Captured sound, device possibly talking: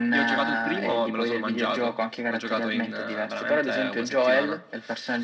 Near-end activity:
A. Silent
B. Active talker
A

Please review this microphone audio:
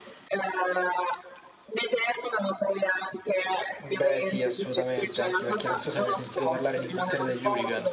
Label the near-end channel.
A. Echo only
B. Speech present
B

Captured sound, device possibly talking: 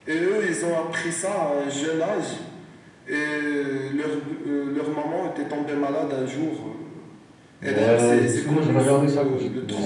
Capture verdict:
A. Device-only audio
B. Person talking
B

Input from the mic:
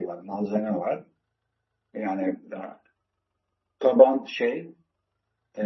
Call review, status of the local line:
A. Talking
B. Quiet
B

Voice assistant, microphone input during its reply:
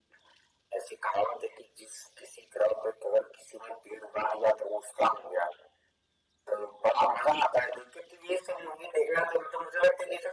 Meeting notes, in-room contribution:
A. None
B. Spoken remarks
A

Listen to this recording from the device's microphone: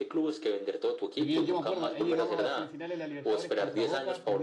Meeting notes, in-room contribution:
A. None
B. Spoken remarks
B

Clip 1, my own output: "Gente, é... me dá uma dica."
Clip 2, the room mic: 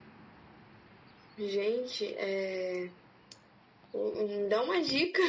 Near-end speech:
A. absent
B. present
A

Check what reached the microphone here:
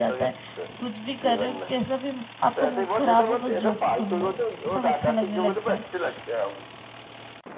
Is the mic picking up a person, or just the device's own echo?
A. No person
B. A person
B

